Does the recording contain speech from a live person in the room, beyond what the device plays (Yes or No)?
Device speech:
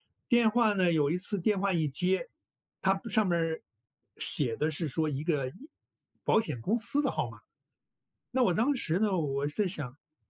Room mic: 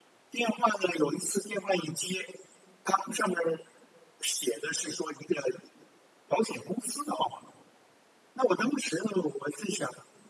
No